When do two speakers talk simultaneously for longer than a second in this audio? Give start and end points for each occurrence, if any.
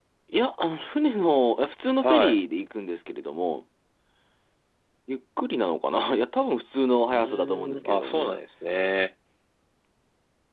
7.1-8.3

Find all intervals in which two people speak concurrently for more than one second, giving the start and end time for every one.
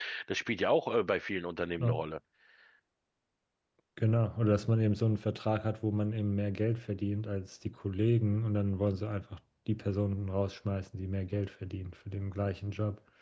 none

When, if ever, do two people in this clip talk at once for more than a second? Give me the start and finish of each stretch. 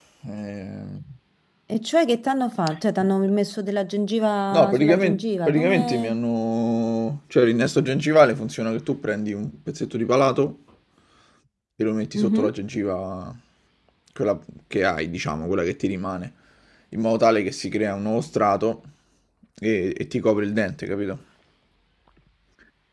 4.5-6.2

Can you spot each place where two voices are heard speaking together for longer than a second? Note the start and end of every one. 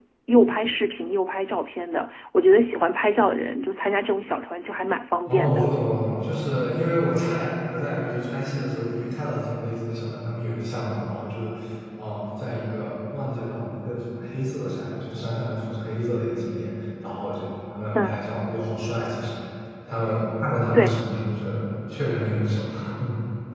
none

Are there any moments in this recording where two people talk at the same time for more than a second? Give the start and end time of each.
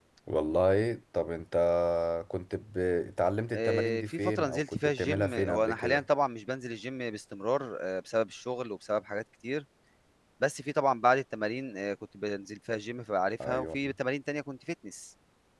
3.5-6.0

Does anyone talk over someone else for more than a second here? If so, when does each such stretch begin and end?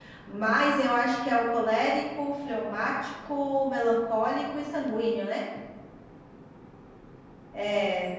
none

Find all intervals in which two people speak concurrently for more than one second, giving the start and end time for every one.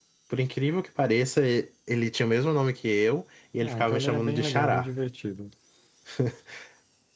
3.6-4.9

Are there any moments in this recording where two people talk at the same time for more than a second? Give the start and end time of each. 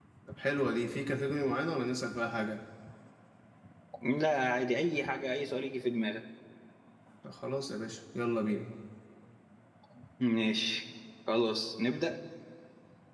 none

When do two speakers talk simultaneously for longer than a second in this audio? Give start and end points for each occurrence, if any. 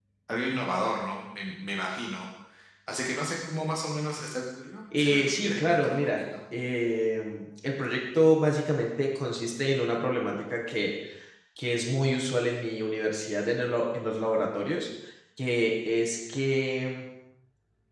5.0-6.2

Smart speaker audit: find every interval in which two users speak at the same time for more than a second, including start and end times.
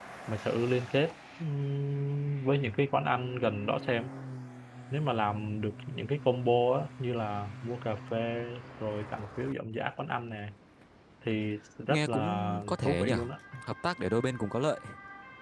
11.9-13.2

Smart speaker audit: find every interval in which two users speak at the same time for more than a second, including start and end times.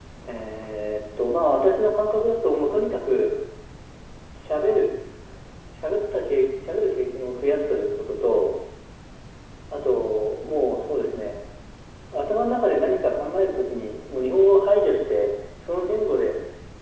none

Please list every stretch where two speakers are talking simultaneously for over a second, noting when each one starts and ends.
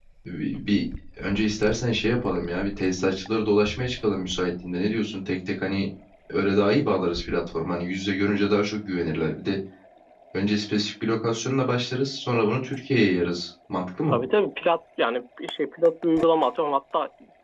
none

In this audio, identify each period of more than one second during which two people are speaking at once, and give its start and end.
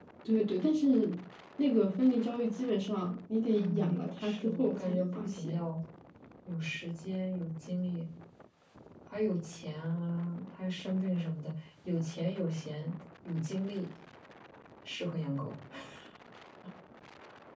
3.5-5.6

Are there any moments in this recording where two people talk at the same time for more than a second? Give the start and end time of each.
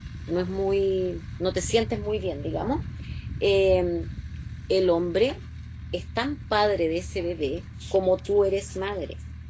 none

